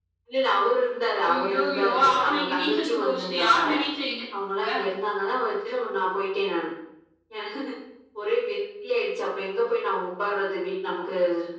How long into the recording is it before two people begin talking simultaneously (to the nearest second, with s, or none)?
1 s